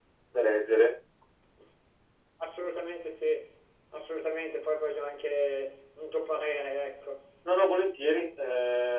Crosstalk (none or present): none